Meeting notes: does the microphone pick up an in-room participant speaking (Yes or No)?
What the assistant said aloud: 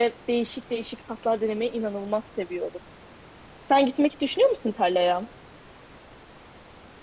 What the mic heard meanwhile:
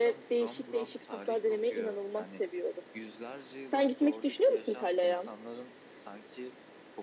Yes